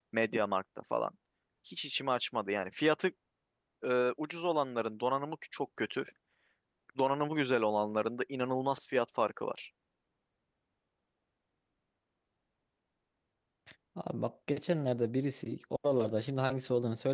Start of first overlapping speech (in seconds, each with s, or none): none